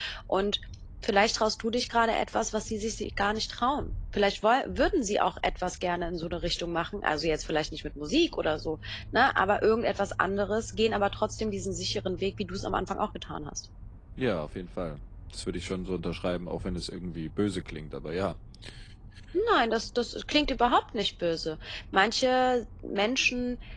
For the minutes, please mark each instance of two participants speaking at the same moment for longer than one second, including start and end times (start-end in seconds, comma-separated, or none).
none